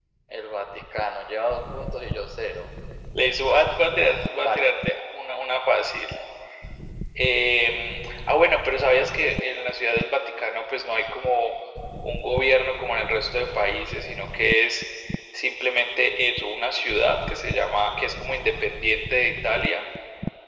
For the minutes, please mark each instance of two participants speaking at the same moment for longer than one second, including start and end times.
none

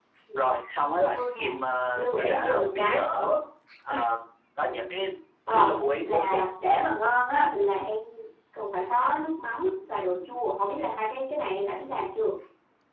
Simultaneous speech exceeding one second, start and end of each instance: 1.9-3.3, 5.5-6.8

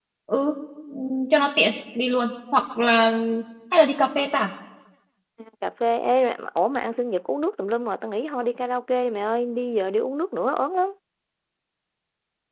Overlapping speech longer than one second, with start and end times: none

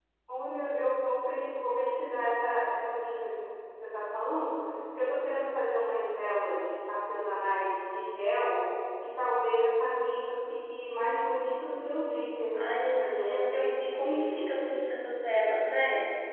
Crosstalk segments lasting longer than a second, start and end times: 12.5-14.5

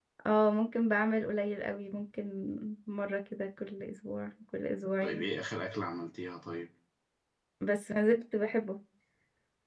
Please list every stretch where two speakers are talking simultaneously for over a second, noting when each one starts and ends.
none

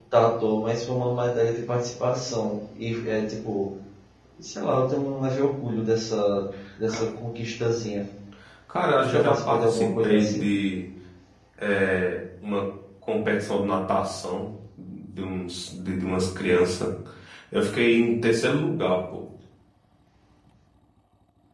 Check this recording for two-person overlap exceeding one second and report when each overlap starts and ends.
9.0-10.5

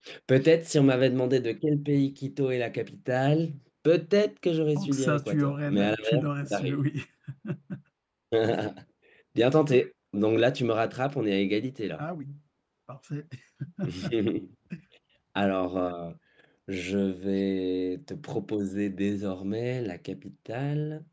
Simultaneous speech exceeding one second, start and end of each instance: 4.8-6.8

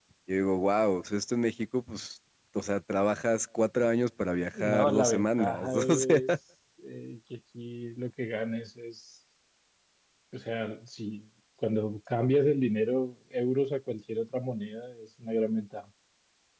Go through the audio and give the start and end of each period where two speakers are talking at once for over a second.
4.5-6.2

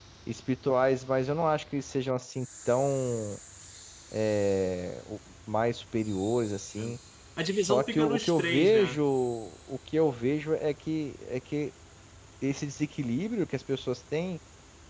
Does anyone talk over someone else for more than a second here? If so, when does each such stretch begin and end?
7.5-9.0

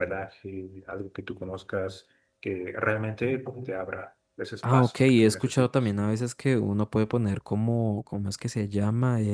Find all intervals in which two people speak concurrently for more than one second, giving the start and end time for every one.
4.7-5.9

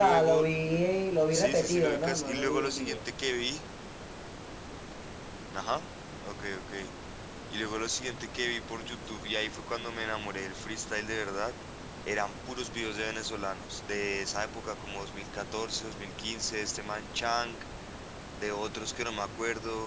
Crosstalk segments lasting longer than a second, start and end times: 1.3-3.0

